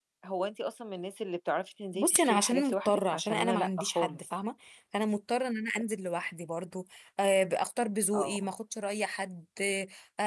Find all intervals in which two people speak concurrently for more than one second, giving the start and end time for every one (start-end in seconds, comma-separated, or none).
1.9-4.2